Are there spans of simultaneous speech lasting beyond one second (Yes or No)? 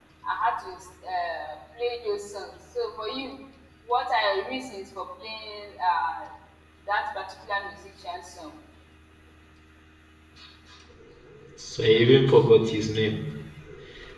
No